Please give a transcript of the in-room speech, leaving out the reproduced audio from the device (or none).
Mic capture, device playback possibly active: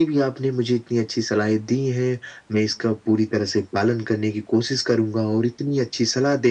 none